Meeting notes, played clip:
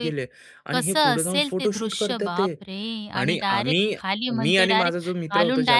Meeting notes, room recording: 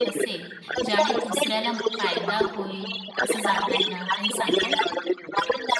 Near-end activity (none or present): present